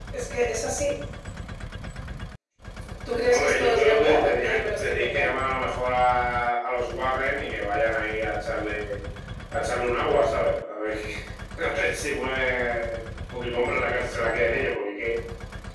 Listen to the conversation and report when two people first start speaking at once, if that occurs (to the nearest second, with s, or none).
3 s